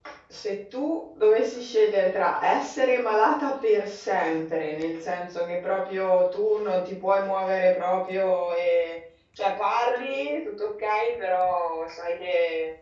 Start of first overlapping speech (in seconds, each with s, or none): none